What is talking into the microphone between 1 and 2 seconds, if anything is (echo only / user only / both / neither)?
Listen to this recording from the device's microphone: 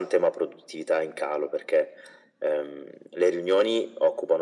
echo only